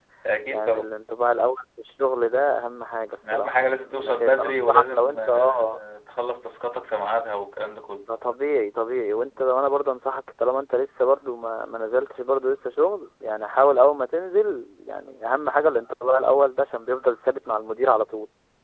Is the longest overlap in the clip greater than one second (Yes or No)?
Yes